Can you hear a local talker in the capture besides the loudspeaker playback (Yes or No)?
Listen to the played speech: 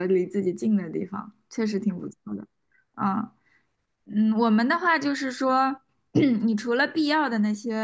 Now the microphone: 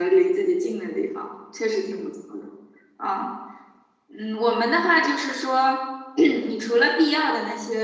No